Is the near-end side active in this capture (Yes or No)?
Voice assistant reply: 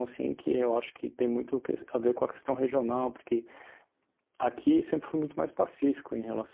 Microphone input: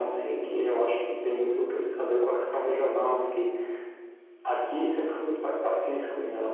No